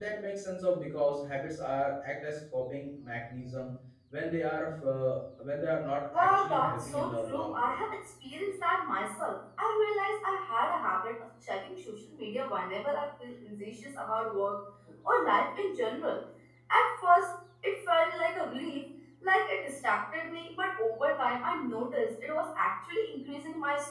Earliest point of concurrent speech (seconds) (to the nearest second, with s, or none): 6 s